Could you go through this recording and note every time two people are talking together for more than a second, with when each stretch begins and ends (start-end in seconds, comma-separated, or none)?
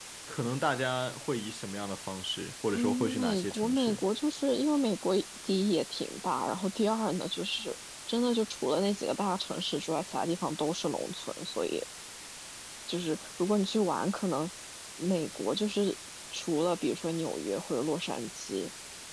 2.7-4.0